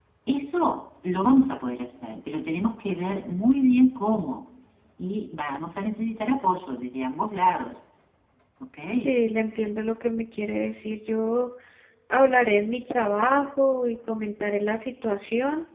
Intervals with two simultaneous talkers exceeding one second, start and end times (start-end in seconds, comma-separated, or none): none